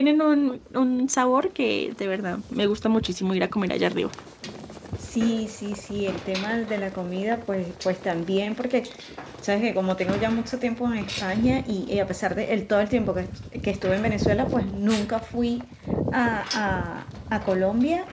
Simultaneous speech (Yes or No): No